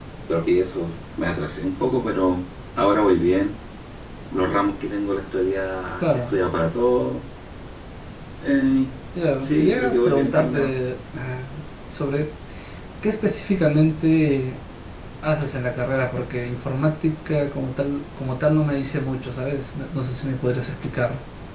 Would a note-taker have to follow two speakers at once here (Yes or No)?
Yes